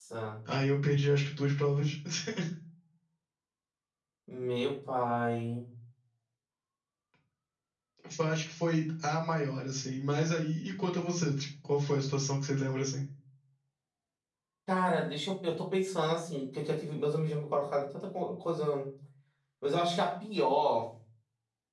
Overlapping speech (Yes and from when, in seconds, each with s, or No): No